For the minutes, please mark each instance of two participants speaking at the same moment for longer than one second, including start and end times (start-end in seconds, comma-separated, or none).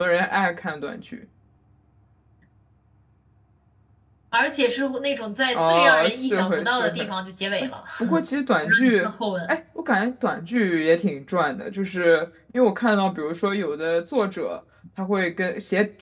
5.5-7.1